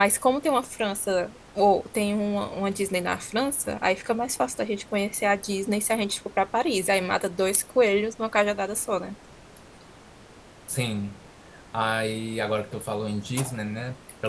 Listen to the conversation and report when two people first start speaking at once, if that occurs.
none

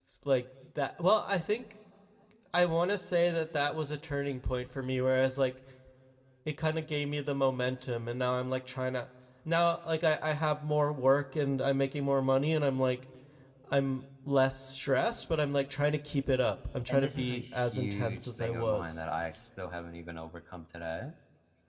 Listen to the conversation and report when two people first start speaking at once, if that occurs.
17 s

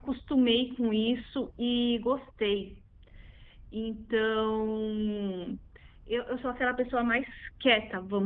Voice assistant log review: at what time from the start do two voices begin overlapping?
none

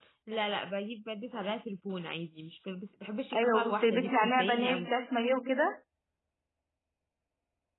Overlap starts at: 3 s

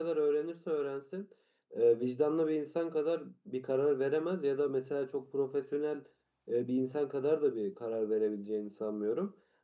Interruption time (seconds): none

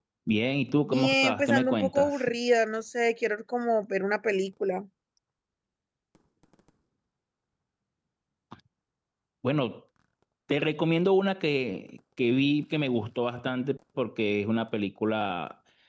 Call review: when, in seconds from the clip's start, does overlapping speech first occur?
1 s

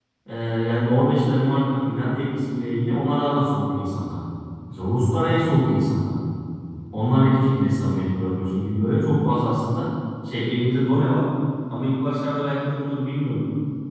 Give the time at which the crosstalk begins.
none

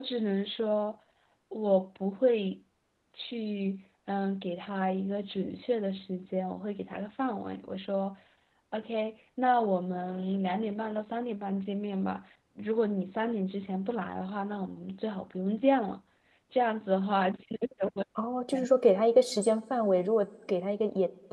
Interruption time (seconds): none

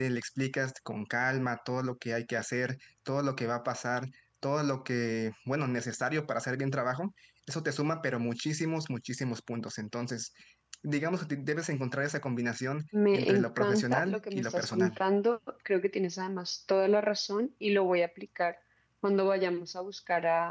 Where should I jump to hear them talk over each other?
13 s

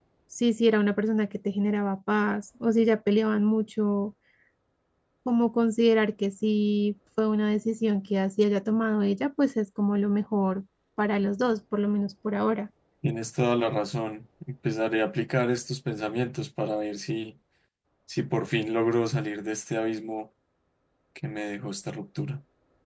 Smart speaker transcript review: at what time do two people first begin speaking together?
none

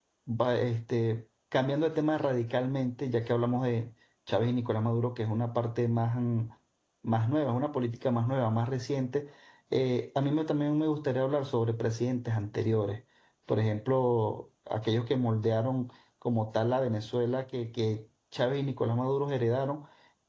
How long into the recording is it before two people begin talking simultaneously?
none

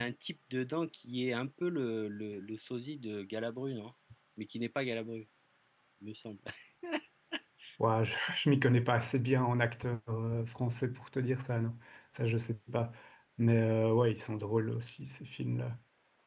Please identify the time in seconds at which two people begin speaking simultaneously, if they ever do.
none

